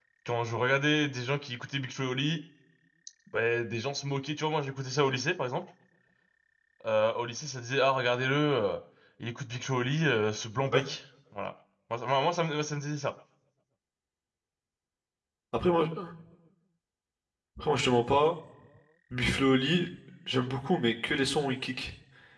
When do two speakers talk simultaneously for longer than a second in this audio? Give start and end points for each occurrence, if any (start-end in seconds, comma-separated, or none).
none